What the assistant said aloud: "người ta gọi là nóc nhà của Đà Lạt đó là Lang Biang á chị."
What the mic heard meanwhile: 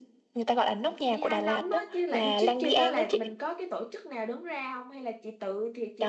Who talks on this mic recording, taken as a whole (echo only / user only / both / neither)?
both